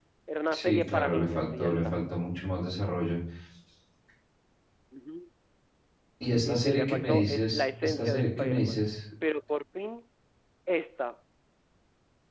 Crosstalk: present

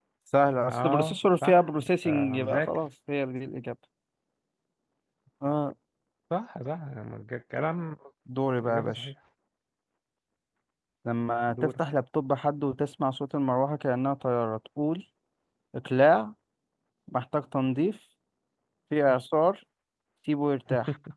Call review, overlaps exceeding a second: present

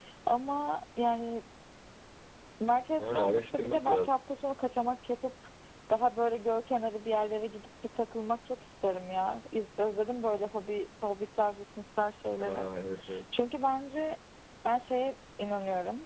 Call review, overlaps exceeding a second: present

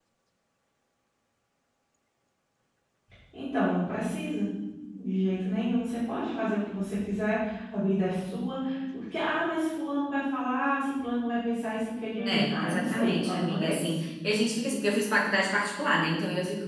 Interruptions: present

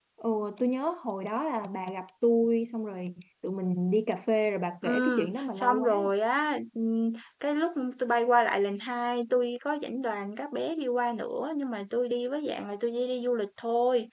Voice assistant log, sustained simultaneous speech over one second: present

